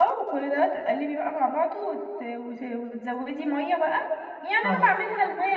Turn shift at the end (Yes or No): No